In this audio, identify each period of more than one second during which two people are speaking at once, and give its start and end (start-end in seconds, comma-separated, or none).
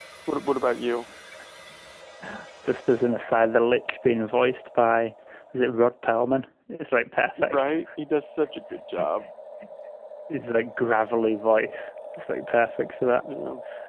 none